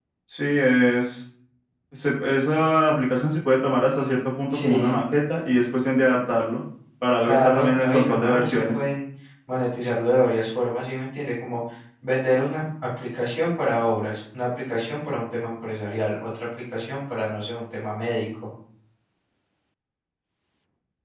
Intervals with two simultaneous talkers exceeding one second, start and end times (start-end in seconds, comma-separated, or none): 7.2-8.8